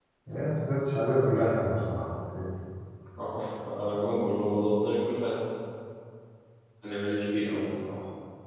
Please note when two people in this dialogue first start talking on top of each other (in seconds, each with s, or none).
none